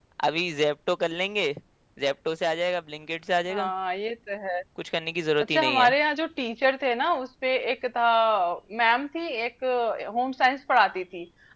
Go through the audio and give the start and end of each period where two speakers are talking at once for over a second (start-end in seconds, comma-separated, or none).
none